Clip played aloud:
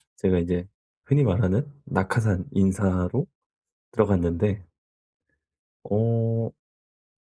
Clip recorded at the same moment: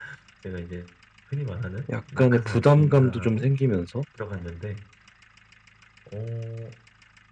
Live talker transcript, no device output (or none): 약간의 부담감도 좀 생기면서